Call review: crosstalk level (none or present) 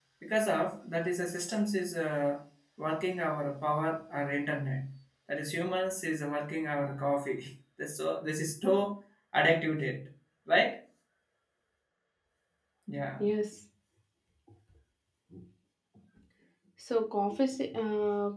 none